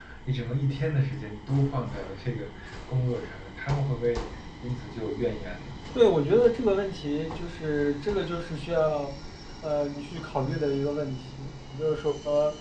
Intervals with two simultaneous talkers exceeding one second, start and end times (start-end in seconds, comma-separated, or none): none